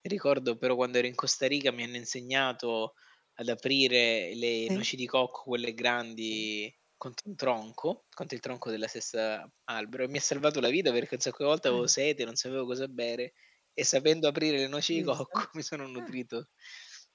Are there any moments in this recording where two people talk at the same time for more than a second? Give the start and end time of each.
none

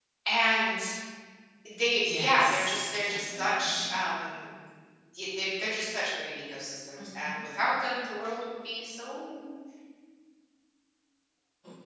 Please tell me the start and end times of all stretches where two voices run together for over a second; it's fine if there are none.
2.0-4.0

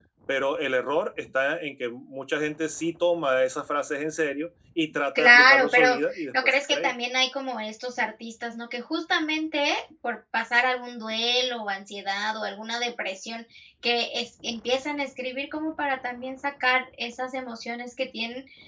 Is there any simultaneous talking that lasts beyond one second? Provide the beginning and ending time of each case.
5.2-6.9

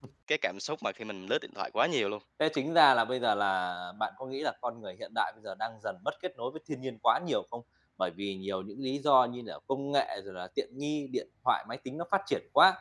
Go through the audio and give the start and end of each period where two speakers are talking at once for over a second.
none

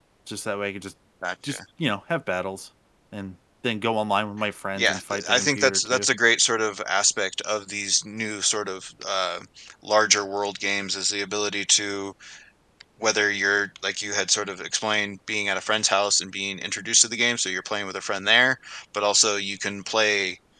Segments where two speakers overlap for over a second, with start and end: 4.8-6.1

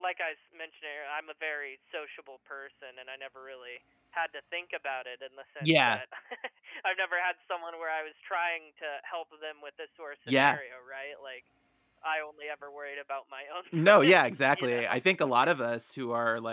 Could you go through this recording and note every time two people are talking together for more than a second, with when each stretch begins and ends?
13.7-15.0

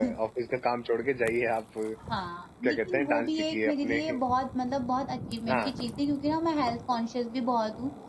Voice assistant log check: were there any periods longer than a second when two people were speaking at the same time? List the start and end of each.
2.7-4.0

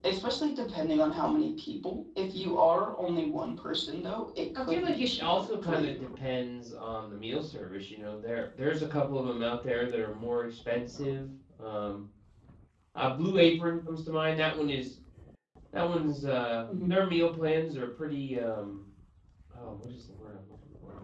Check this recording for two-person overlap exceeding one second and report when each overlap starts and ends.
4.6-6.0

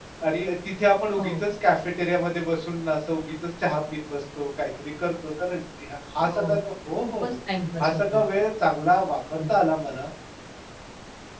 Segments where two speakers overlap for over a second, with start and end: none

